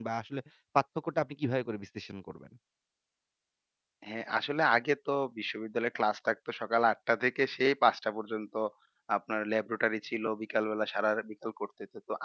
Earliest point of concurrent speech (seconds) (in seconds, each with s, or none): none